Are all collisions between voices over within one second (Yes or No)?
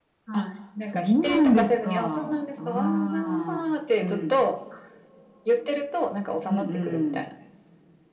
No